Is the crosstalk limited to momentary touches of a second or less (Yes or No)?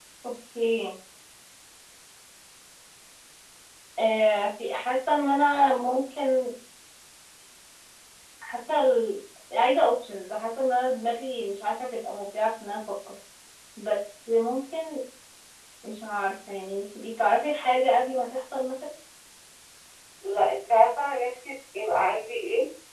Yes